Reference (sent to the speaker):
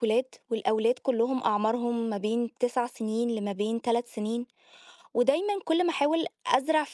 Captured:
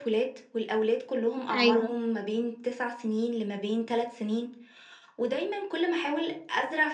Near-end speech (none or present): present